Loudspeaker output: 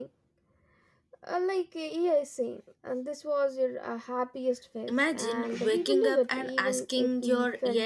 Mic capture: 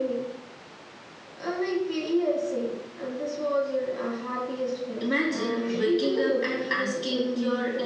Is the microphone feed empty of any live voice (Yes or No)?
Yes